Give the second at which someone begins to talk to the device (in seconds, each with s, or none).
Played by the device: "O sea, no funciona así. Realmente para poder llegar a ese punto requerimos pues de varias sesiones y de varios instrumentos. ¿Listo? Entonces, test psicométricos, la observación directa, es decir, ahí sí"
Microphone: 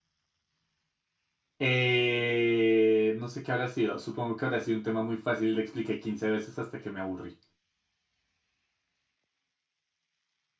1.6 s